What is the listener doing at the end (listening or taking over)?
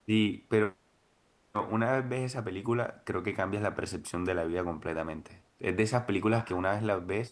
listening